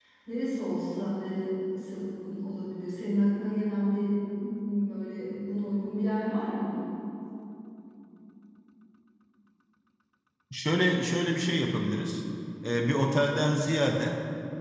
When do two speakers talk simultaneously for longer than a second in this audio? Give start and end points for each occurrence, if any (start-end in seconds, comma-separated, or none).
none